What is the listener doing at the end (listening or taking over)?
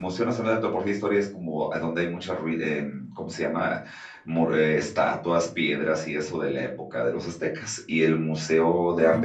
listening